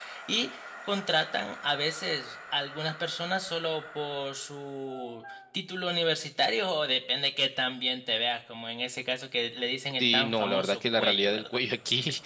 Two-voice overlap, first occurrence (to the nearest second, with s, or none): 10 s